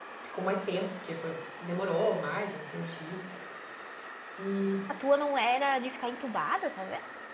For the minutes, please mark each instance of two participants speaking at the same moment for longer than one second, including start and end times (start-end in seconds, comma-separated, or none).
none